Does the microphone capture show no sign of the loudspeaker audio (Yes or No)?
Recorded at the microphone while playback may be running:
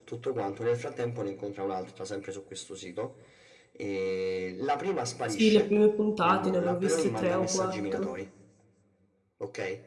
No